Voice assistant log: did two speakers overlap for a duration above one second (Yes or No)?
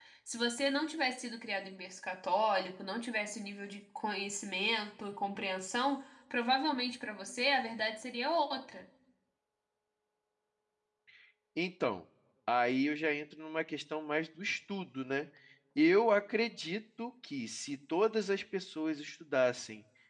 No